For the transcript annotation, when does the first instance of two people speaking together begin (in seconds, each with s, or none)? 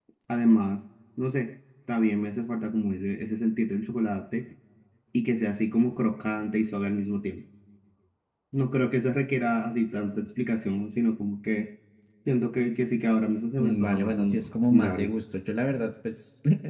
13.6 s